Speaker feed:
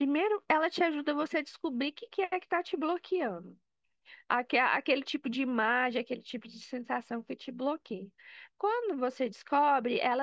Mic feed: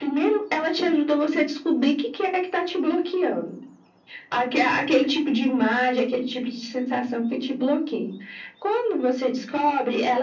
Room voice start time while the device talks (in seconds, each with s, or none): none